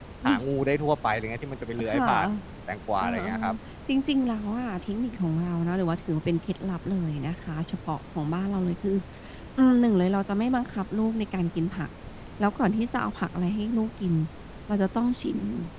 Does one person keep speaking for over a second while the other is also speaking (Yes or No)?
No